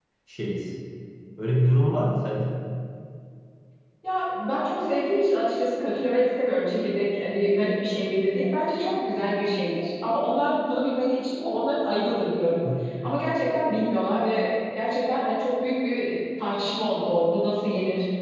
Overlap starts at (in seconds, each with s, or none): none